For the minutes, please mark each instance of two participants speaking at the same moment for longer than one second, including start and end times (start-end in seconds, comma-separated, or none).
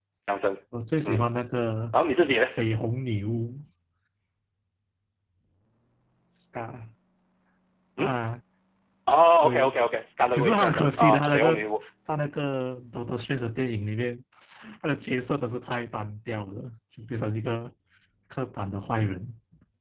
10.3-11.6